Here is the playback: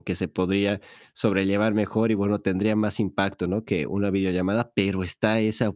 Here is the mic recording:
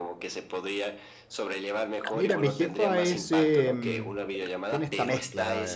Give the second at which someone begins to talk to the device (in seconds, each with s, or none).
2.1 s